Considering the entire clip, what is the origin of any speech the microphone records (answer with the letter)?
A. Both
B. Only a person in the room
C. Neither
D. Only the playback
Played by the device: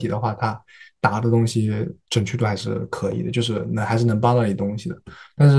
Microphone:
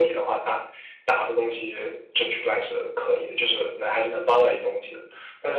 D